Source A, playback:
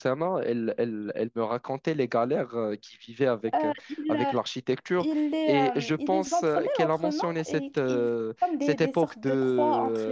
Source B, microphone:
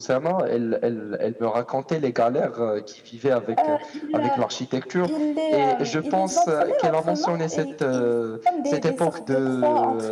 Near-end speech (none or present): none